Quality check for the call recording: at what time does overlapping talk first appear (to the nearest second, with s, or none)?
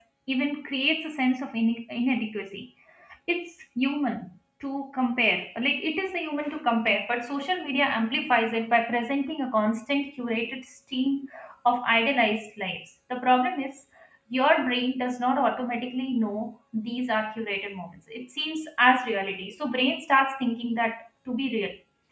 none